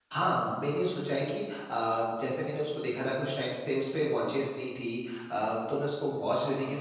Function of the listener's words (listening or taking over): listening